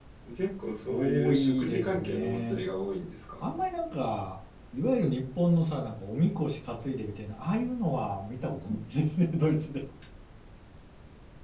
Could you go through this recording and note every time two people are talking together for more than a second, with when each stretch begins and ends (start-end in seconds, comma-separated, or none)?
0.9-2.6